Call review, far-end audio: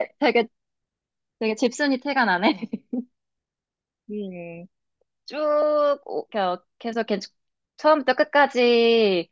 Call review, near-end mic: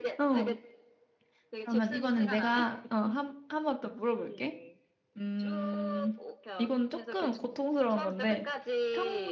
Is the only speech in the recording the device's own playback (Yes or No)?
No